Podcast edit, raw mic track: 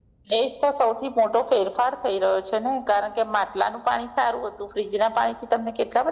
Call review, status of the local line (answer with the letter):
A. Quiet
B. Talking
A